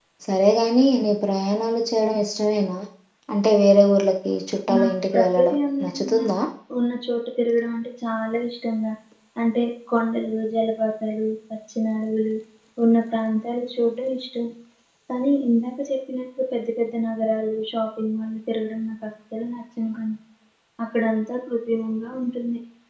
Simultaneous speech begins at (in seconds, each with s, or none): 4.7 s